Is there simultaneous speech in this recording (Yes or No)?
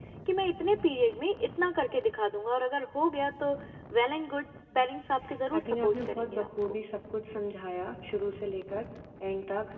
Yes